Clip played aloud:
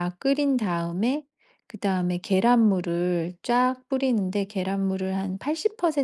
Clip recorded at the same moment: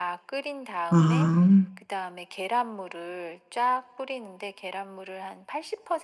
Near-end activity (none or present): present